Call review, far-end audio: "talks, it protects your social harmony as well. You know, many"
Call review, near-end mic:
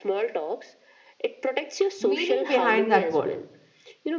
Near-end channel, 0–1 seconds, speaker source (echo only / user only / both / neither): echo only